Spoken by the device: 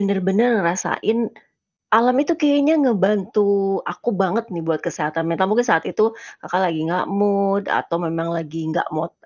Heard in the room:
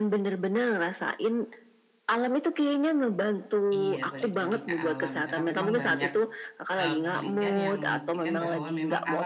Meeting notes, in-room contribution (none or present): present